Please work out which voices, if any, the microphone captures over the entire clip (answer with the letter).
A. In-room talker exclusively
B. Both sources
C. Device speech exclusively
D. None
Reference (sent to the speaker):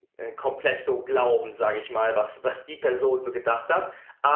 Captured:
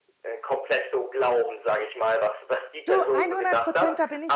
B